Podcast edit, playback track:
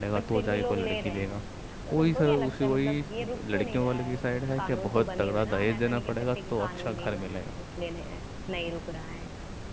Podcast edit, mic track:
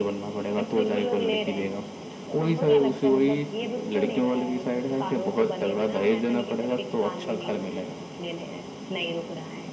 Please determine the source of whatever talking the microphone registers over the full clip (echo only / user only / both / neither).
echo only